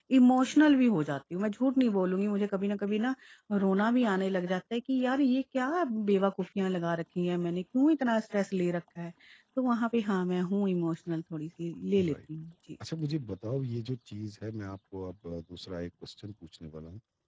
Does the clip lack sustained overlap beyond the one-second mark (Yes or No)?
Yes